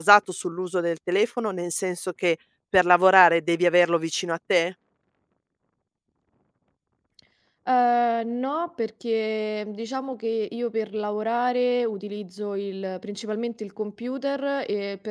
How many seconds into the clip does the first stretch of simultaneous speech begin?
none

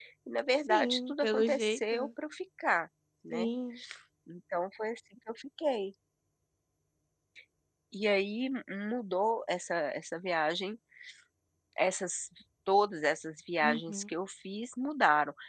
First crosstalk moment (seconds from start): 0.7 s

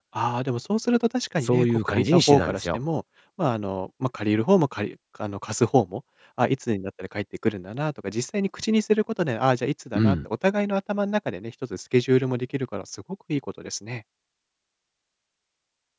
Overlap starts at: 1.4 s

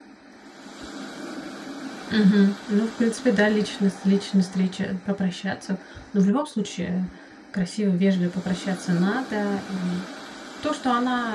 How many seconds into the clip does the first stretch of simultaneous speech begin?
none

